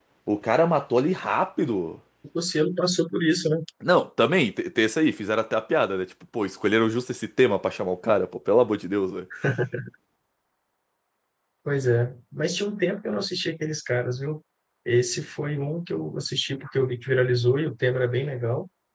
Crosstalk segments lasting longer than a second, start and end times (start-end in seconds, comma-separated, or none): none